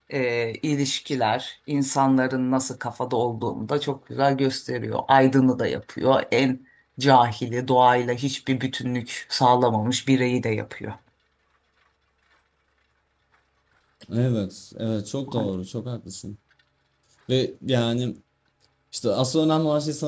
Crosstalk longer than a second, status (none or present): none